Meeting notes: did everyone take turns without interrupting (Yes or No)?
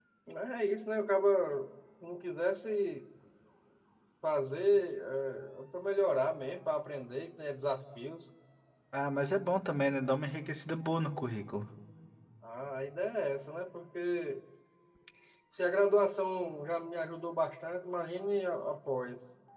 Yes